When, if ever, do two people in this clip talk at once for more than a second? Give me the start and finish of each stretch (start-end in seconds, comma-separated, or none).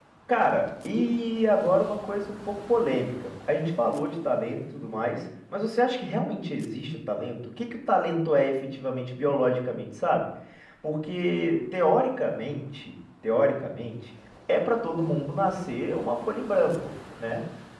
none